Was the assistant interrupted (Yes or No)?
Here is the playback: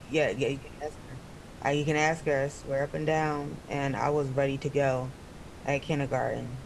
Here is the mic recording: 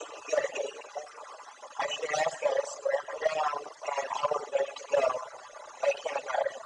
No